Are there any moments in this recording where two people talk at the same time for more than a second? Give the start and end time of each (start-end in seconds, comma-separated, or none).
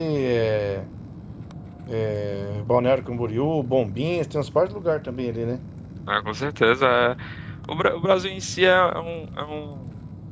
none